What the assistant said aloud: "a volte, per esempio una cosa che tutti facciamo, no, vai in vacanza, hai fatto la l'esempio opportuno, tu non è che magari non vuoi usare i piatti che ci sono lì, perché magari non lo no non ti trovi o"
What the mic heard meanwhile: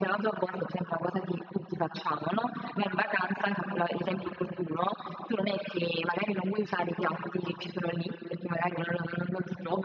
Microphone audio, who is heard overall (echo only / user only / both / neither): echo only